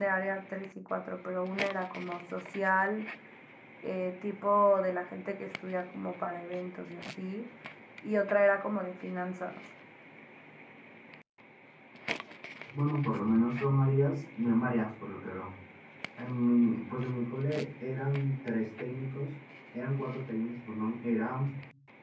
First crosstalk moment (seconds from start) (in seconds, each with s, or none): none